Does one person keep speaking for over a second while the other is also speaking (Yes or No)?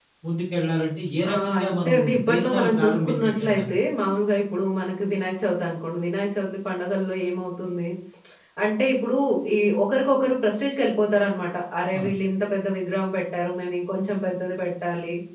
Yes